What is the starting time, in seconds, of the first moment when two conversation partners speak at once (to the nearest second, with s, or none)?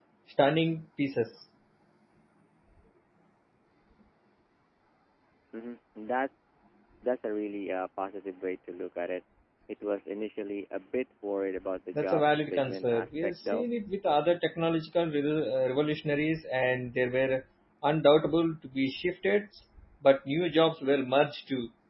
12 s